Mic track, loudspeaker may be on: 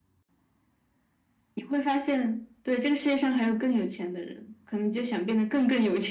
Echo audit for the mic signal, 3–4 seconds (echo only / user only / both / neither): echo only